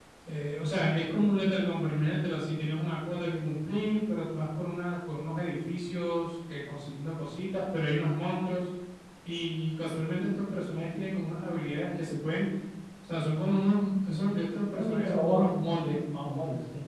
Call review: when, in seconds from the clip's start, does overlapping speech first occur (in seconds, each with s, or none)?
14.7 s